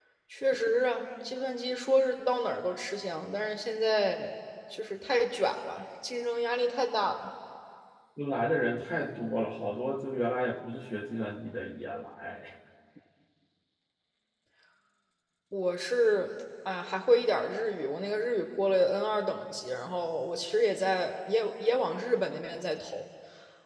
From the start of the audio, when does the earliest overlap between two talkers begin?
none

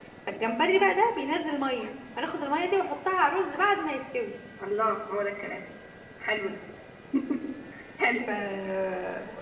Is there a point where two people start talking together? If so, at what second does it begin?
none

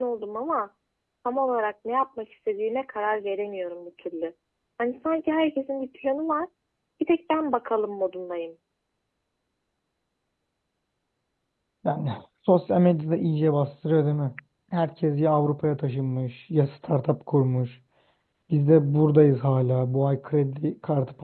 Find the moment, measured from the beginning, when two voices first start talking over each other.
none

